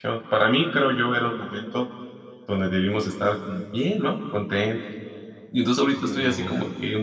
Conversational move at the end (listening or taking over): listening